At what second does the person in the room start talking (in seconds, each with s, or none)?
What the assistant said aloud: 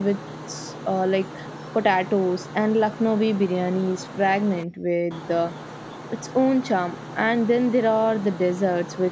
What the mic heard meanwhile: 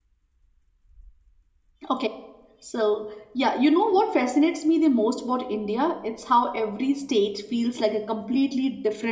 1.9 s